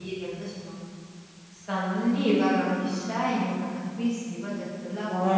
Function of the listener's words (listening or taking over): taking over